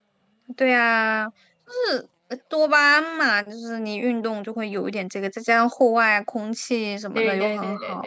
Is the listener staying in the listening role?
No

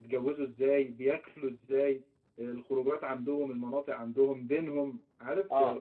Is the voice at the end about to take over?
No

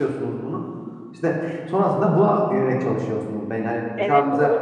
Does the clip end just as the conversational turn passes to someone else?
Yes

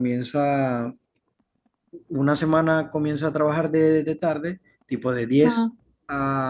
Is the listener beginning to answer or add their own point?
No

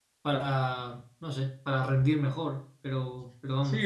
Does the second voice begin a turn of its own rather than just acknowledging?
Yes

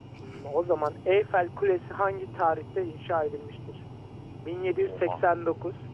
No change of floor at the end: Yes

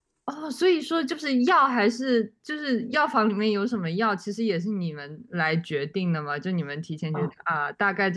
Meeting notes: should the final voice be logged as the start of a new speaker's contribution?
No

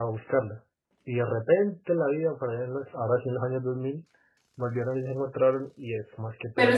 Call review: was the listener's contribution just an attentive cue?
No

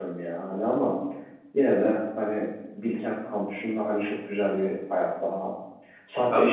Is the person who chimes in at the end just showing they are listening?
Yes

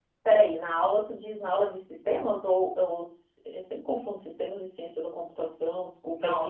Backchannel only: No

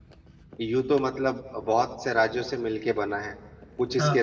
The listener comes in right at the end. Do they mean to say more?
No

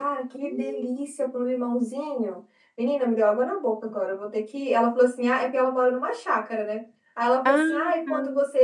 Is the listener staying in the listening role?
Yes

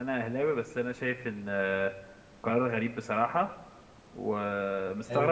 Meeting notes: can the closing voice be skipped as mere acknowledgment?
Yes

